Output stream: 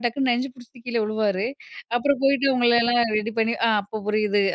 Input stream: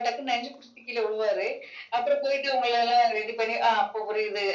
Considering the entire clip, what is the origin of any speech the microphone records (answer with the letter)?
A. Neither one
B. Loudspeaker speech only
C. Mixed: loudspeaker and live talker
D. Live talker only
B